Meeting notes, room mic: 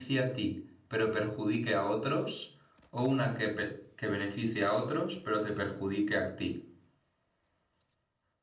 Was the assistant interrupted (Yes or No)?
Yes